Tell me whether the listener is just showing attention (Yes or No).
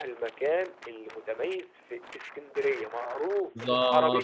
No